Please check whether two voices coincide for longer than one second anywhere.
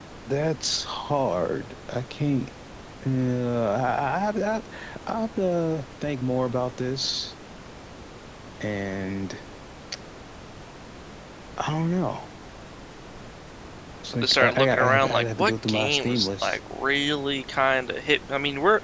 Yes, from 14.1 s

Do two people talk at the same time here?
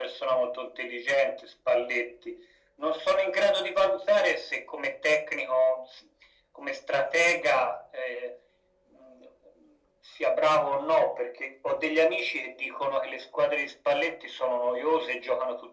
No

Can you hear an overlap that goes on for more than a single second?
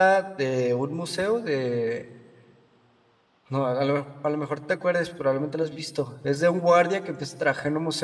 No

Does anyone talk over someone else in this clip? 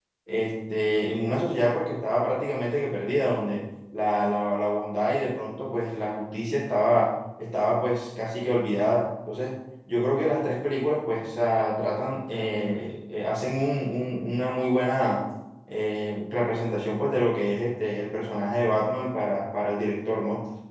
No

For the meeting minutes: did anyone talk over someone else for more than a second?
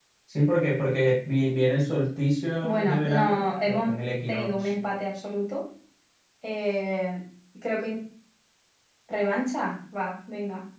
Yes, from 2.6 s

